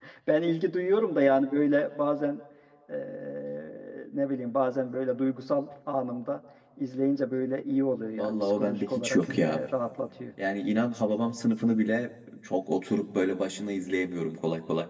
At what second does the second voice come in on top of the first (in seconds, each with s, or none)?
8.2 s